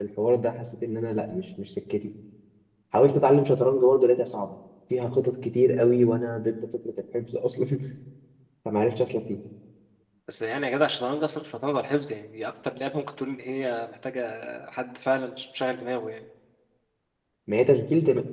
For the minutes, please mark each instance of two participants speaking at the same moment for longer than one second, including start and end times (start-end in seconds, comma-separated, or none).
none